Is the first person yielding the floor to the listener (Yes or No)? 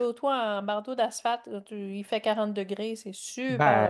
Yes